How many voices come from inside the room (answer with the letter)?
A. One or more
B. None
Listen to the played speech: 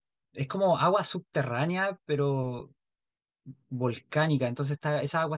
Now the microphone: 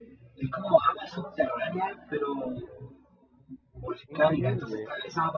A